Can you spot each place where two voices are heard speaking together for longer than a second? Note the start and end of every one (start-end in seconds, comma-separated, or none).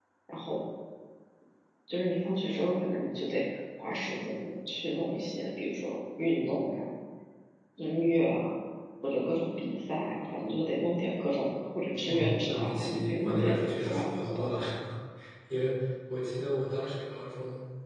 12.1-14.6